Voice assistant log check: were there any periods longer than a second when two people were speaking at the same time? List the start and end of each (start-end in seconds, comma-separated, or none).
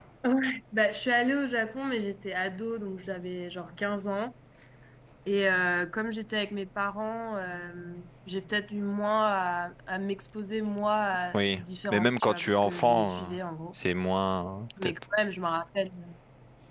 11.3-13.3